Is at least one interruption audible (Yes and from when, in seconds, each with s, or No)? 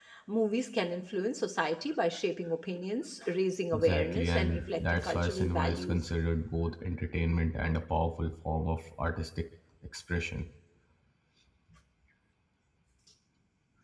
Yes, from 3.7 s